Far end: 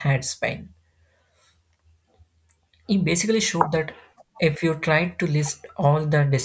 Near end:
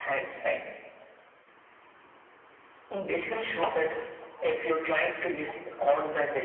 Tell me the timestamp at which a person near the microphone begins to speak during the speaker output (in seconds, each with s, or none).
none